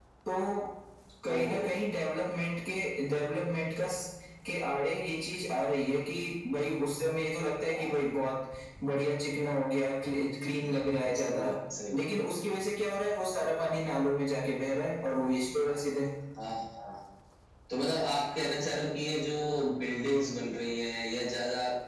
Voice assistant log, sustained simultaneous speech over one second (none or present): none